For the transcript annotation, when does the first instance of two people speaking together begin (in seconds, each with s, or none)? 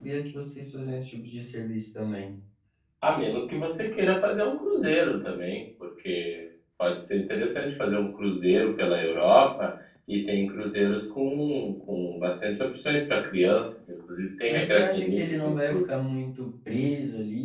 14.5 s